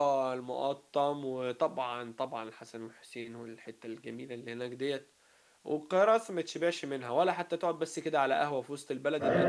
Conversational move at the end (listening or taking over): taking over